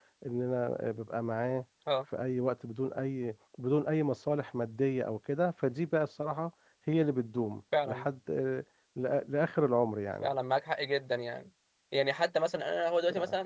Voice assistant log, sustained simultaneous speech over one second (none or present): none